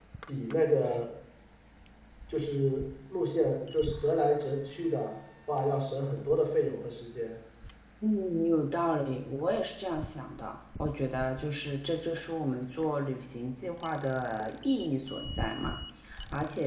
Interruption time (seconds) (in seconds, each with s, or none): none